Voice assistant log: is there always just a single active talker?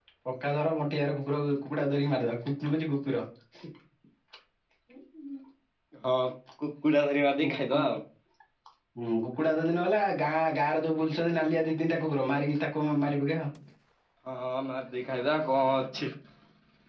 Yes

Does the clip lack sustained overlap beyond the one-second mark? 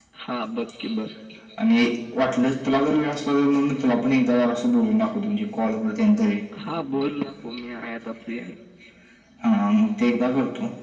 Yes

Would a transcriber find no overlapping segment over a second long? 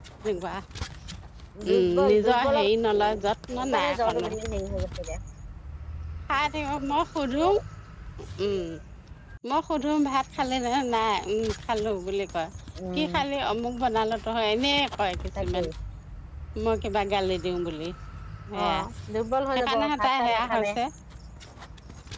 No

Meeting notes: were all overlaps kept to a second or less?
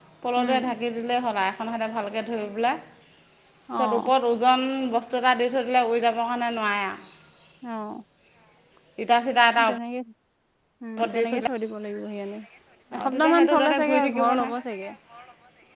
No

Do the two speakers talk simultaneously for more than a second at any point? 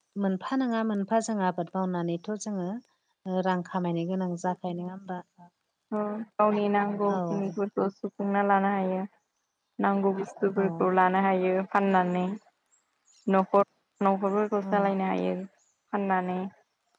No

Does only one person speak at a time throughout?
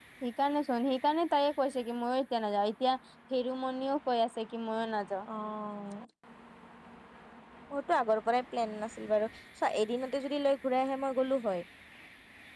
Yes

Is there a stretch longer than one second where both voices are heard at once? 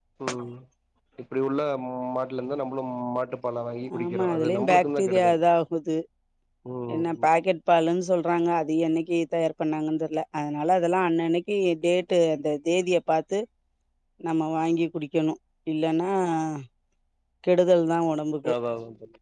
Yes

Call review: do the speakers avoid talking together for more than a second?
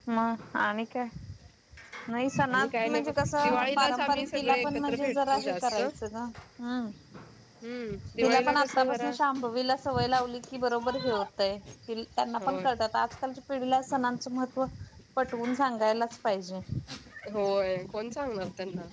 No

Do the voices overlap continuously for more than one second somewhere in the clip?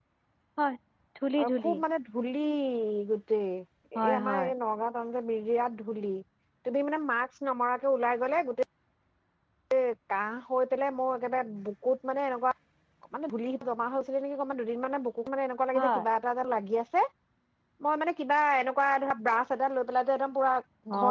No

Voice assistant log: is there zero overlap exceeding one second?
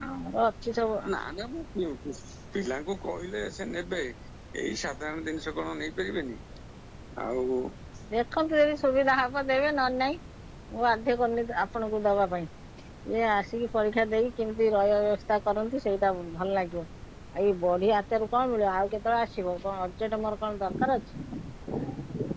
Yes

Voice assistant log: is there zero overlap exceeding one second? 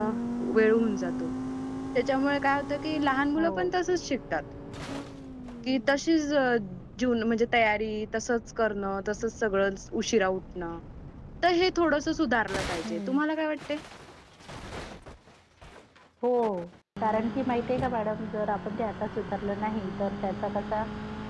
Yes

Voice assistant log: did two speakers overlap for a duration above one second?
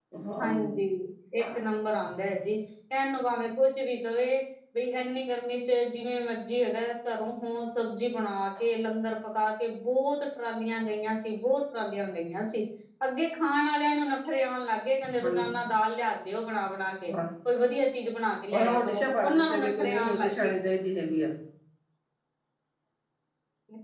Yes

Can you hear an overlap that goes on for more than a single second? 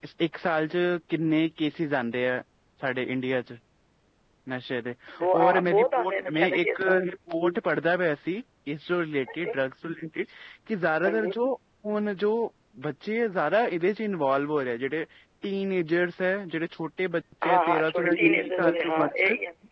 Yes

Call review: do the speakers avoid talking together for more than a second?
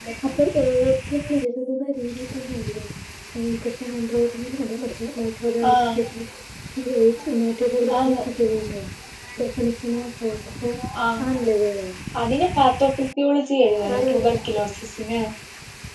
Yes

